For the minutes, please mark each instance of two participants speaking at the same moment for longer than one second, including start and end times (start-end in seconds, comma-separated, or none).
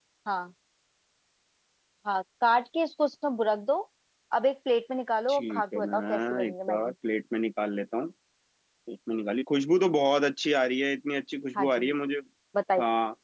5.3-6.9